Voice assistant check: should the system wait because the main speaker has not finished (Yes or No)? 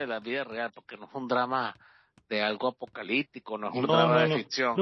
No